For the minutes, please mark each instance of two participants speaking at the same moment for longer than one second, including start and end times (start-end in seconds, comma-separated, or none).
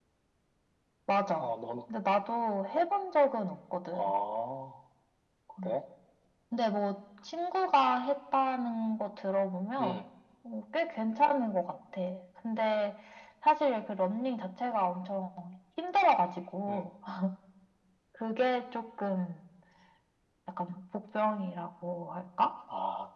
none